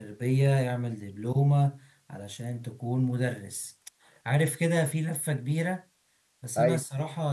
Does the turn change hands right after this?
No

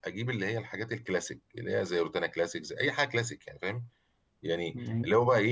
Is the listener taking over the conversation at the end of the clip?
No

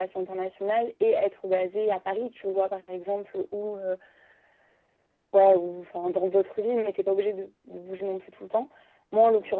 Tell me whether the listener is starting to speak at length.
No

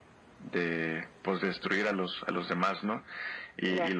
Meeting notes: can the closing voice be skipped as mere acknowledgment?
Yes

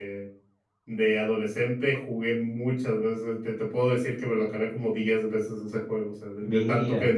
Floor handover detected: No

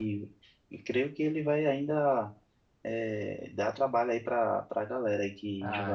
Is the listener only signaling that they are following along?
No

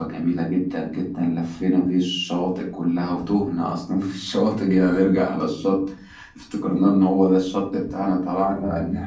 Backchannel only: Yes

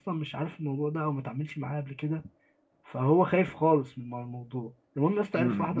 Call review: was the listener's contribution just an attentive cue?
No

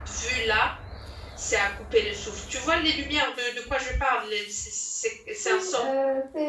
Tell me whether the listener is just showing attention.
No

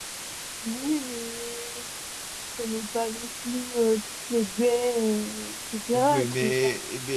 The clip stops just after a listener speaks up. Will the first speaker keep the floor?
No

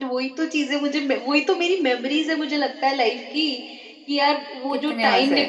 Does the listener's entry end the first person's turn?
No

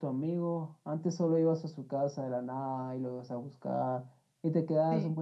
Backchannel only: Yes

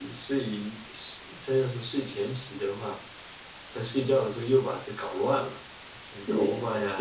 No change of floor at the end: No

